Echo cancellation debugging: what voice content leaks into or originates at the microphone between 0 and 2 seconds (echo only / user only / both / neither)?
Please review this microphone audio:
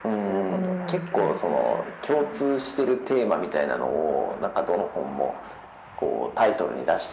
both